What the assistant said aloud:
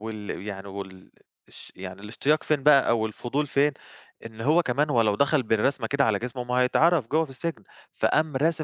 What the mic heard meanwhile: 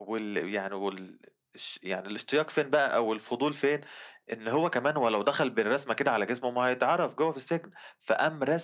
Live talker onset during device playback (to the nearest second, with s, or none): none